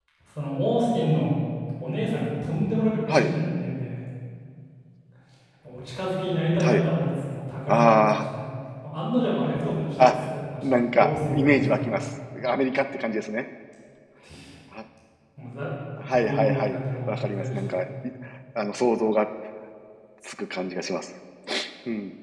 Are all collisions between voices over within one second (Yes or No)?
No